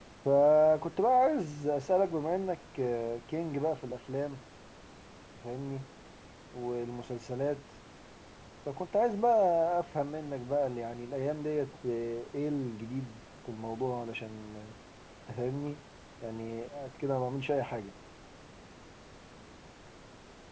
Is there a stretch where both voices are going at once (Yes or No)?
No